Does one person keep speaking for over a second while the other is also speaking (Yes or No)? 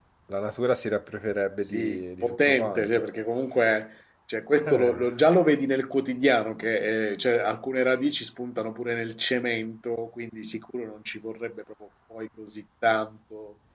Yes